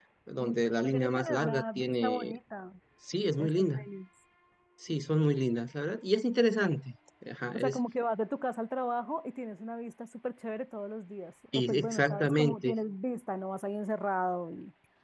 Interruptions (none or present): present